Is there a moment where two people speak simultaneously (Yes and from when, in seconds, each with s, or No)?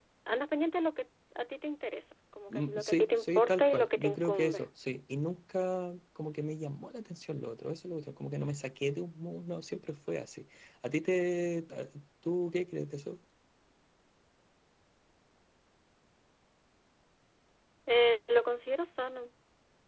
Yes, from 2.5 s